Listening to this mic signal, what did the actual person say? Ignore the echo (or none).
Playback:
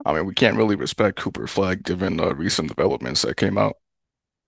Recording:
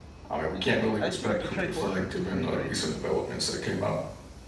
I got you. I feel like you trade Horford before you trade Drew.